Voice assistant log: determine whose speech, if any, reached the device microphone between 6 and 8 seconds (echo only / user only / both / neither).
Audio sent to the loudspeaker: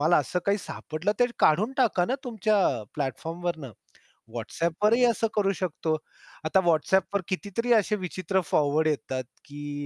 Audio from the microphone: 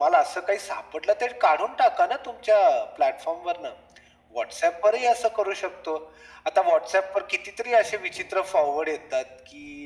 echo only